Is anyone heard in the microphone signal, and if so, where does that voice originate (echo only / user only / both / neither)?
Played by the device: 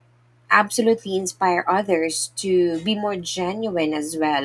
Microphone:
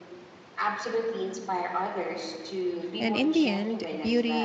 both